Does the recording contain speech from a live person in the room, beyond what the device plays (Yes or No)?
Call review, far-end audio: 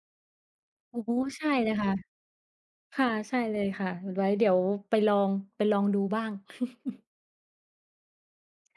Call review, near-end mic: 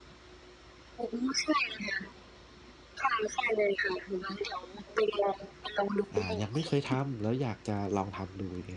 Yes